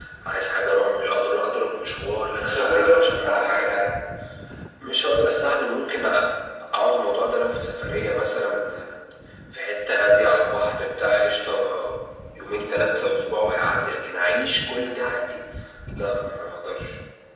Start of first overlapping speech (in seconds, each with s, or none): 2.4 s